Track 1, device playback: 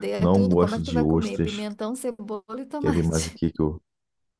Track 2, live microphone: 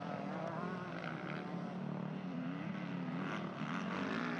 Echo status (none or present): none